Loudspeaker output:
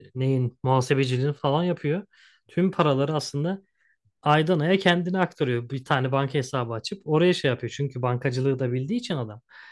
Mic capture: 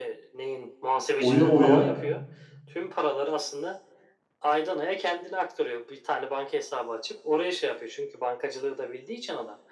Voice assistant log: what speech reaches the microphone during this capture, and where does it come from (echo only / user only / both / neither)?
both